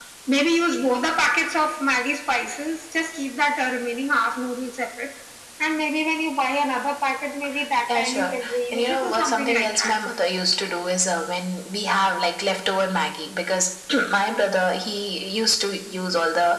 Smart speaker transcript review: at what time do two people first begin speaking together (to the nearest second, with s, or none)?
8 s